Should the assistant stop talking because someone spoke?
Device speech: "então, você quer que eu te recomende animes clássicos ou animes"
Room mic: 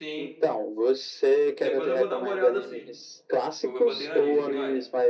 Yes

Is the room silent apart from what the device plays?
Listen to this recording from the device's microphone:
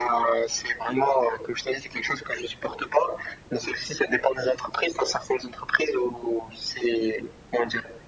Yes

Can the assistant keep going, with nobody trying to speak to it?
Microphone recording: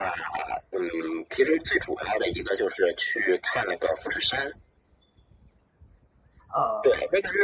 No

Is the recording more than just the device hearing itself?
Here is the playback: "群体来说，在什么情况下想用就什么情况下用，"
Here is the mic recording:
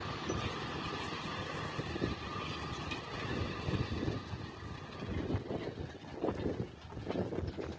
No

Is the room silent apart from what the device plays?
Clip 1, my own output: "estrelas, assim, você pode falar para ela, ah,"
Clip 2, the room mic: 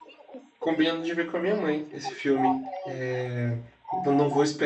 No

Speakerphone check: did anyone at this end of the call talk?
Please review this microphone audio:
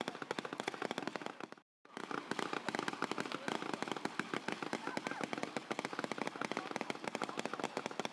No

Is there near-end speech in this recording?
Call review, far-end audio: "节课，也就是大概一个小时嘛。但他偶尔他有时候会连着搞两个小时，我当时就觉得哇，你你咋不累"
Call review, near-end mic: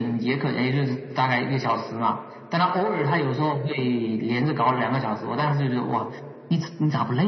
No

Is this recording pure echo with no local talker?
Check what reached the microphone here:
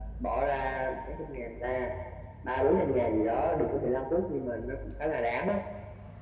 Yes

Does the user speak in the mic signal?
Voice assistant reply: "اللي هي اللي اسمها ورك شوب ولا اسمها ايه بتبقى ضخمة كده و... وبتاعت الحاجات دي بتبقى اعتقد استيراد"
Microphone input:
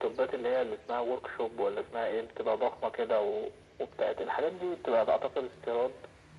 No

